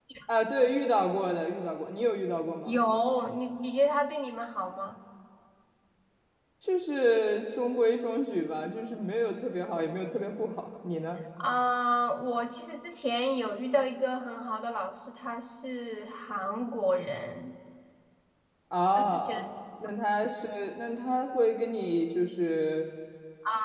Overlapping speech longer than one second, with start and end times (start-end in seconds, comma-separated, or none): none